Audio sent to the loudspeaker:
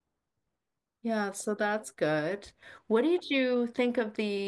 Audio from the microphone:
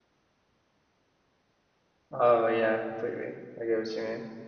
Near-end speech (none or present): present